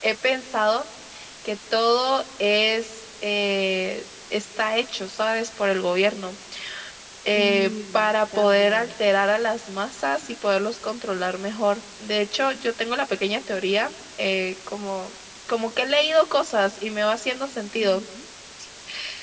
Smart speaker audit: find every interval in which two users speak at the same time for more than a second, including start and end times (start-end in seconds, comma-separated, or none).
7.3-8.9